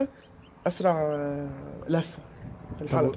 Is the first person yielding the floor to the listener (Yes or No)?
Yes